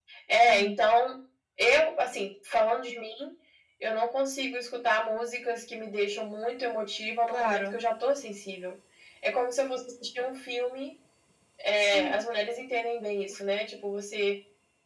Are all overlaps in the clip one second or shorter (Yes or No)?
Yes